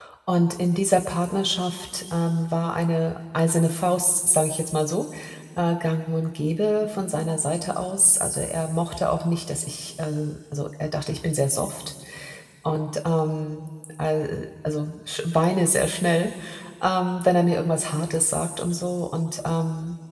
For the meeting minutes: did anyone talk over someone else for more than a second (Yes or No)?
No